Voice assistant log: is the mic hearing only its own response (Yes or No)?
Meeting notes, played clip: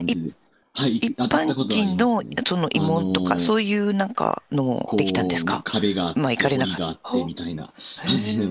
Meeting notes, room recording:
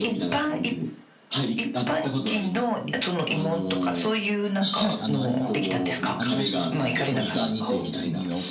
No